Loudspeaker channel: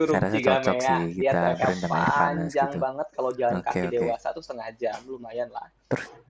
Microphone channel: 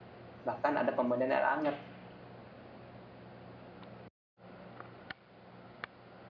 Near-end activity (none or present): present